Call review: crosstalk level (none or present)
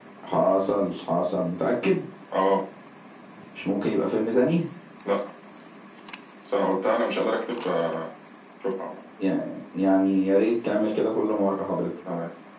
none